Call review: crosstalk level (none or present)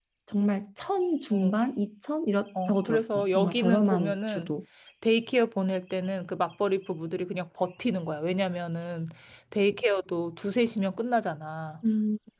present